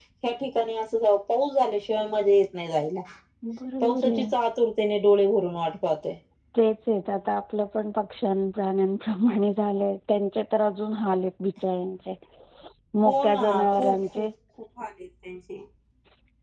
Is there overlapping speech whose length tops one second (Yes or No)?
Yes